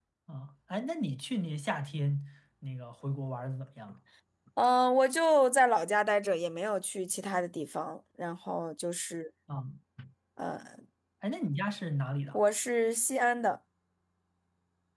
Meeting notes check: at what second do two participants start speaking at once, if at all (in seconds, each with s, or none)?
none